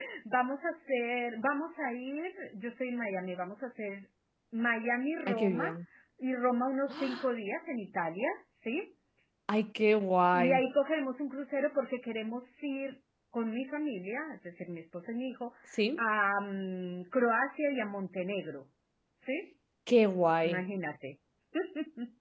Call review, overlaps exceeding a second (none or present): none